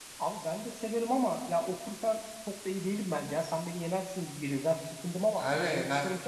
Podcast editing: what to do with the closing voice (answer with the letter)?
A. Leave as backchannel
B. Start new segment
B